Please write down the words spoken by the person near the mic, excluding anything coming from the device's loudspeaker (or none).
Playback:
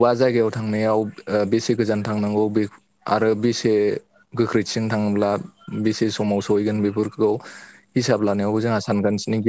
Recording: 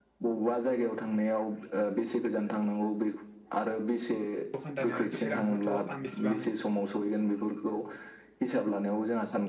दखानदारनो जौसे रां हरथ' आं इसिबां